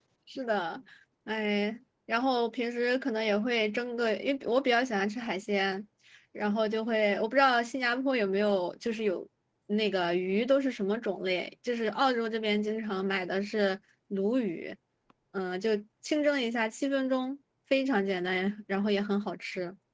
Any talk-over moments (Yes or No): No